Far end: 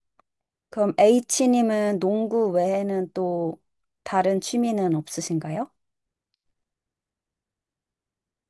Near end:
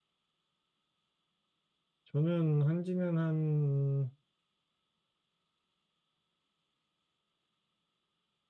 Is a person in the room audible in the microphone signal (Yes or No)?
Yes